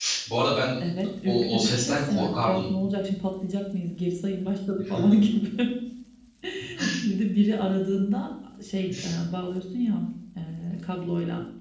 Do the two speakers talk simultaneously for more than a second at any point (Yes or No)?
Yes